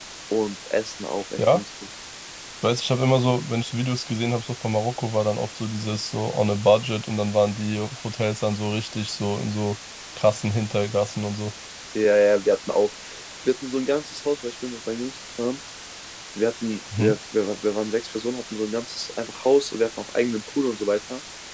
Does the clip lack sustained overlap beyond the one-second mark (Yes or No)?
Yes